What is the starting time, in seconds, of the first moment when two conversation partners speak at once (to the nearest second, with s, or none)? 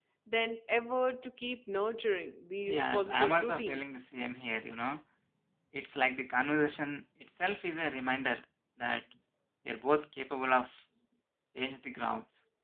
3 s